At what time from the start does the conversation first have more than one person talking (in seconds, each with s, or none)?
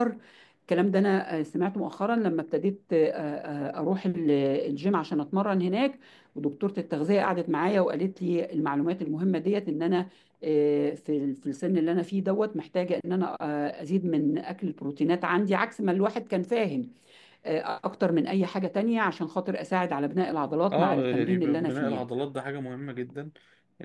20.7 s